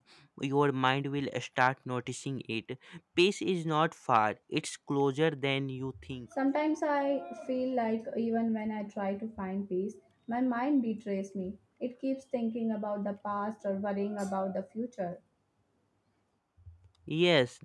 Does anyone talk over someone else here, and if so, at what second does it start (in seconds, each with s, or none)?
none